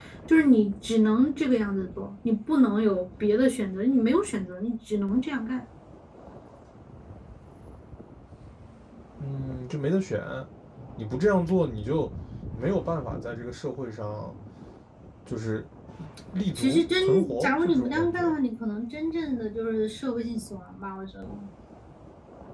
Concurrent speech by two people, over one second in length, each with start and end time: 16.6-18.4

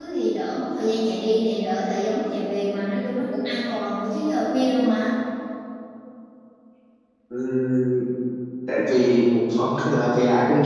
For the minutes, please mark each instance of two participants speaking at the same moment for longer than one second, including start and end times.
none

